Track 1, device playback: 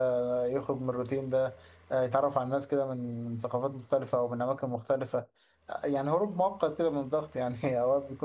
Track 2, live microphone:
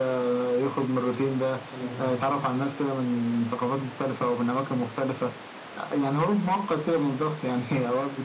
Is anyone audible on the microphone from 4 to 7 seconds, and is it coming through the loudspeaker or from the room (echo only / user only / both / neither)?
echo only